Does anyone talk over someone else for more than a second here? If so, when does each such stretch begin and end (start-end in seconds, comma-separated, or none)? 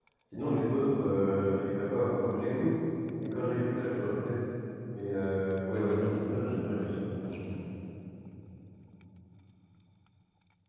5.7-7.0